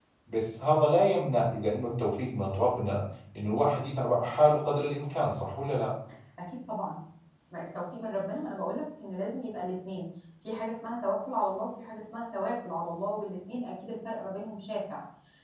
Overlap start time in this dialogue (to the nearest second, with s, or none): none